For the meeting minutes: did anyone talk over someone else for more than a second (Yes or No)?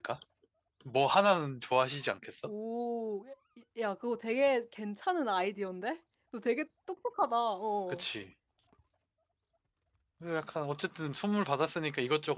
No